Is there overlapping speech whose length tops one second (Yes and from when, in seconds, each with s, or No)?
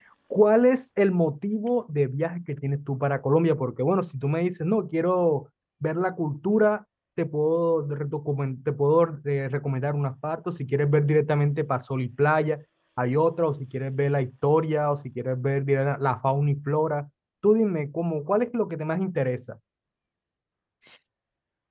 No